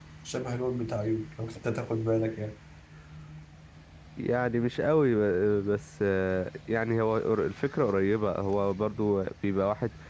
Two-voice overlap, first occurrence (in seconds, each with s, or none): none